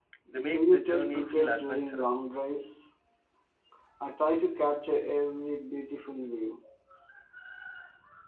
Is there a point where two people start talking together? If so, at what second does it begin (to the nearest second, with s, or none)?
1 s